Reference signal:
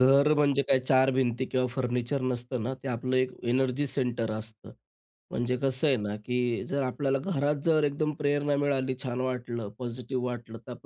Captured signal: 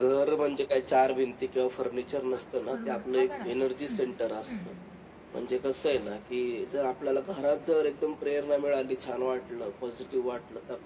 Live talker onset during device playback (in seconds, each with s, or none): 2.4 s